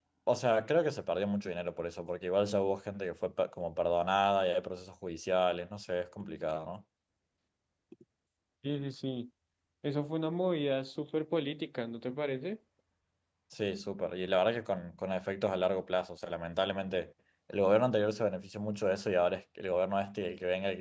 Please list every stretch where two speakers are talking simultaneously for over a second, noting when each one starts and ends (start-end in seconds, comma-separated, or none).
none